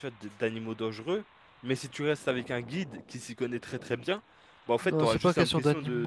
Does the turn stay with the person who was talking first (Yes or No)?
No